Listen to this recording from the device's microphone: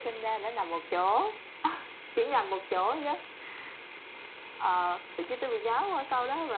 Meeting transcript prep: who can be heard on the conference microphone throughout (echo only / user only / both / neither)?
echo only